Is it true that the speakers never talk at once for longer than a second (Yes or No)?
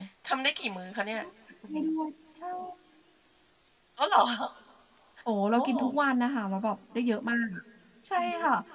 Yes